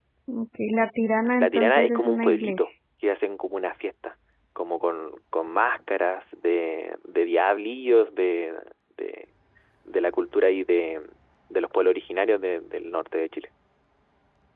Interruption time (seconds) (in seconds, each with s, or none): 1.4 s